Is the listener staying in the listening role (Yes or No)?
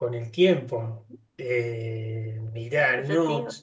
Yes